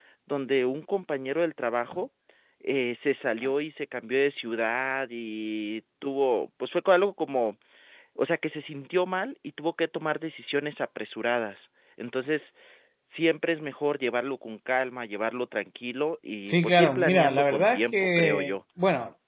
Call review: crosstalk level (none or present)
present